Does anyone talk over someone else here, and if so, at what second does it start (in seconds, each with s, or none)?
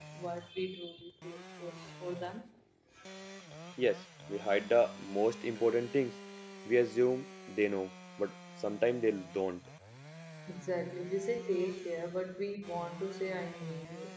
none